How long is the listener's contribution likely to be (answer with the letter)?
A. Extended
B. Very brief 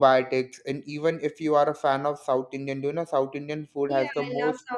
A